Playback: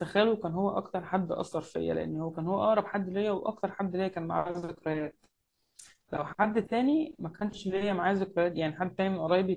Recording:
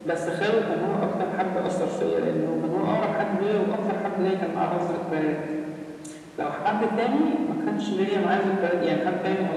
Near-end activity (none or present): none